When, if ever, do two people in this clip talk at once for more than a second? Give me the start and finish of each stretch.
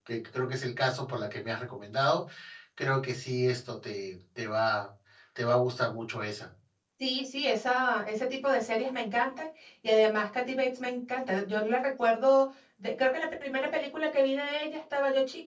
none

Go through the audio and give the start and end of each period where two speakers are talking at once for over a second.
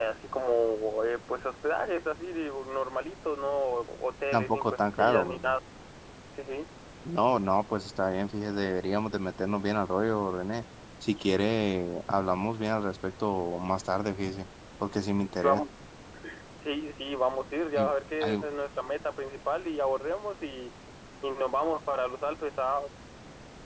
4.3-5.6

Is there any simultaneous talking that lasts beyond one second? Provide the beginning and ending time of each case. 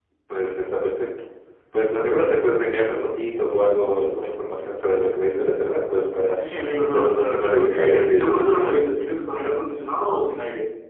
6.9-8.7

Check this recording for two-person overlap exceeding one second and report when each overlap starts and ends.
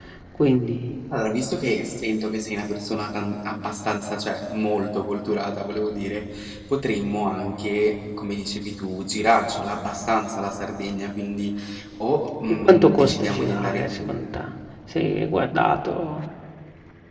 12.5-14.3

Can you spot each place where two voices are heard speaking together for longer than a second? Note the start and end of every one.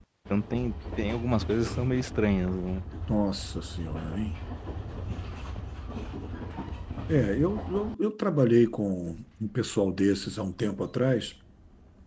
none

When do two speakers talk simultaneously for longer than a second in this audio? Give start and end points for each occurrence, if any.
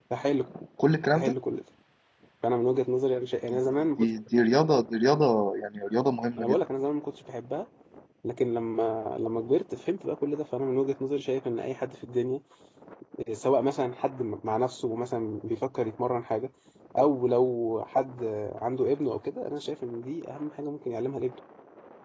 none

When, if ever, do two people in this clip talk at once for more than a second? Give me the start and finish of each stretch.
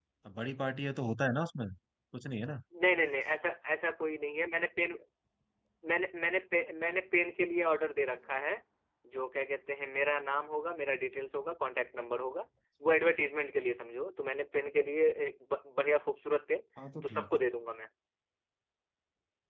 none

